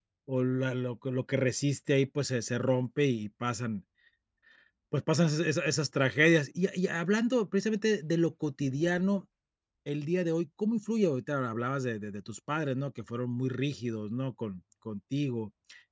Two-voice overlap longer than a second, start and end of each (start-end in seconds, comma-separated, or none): none